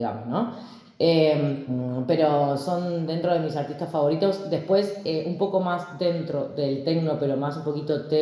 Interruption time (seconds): none

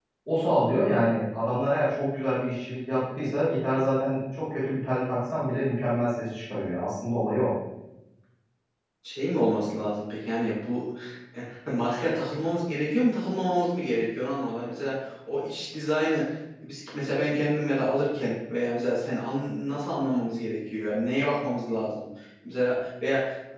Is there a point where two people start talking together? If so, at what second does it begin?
none

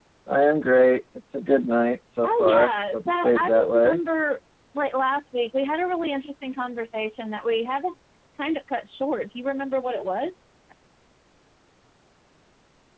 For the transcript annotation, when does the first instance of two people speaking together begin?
2.2 s

